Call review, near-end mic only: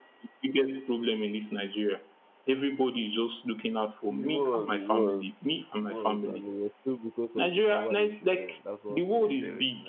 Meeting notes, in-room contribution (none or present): present